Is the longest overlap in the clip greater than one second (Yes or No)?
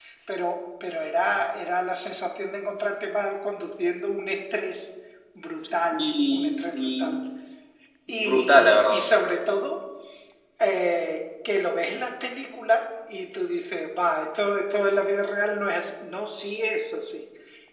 Yes